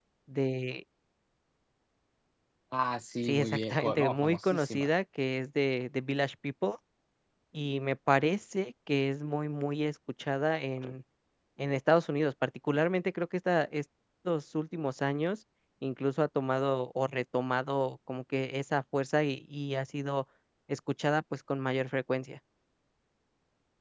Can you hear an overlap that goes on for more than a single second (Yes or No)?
Yes